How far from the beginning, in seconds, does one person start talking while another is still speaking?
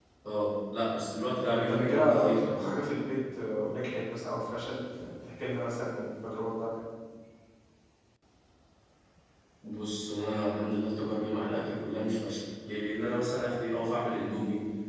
1.4 s

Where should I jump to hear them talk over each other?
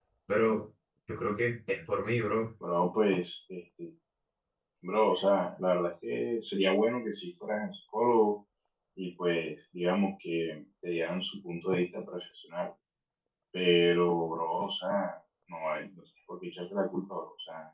none

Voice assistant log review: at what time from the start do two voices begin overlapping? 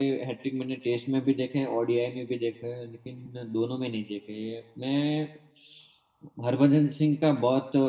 none

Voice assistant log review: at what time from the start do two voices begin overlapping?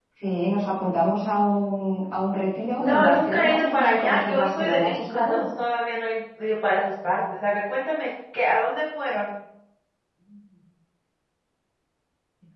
2.8 s

